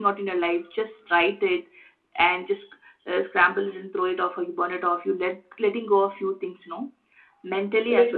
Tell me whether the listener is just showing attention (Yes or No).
No